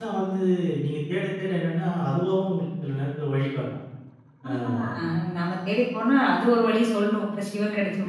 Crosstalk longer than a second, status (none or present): none